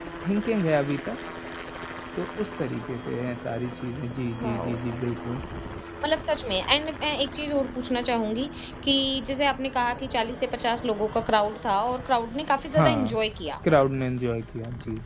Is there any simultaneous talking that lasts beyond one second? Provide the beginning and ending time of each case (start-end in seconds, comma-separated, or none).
none